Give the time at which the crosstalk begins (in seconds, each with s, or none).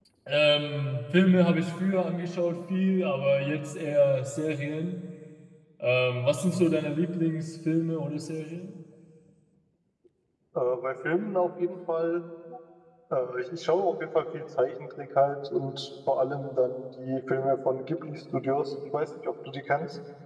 none